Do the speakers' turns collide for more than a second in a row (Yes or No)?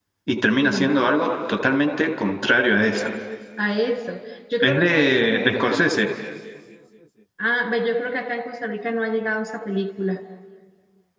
Yes